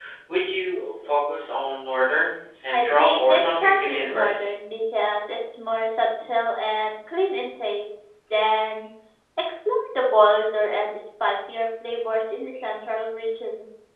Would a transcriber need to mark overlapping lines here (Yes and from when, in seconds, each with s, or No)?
Yes, from 2.7 s